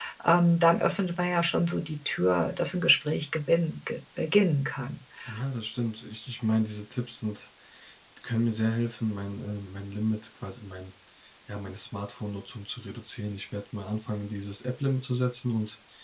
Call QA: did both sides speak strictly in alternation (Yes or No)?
Yes